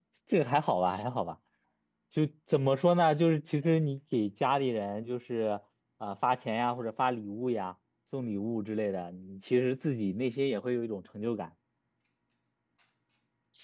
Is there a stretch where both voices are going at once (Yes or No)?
No